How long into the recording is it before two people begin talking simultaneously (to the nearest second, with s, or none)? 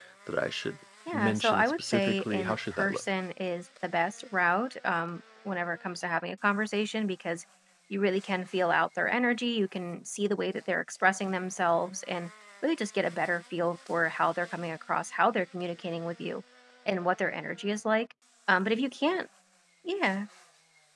1 s